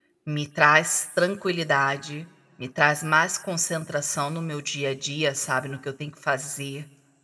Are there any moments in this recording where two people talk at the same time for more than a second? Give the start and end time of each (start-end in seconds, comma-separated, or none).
none